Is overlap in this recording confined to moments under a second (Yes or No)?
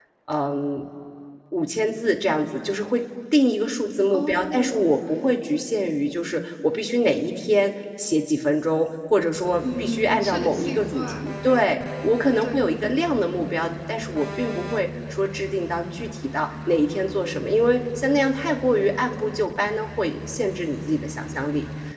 No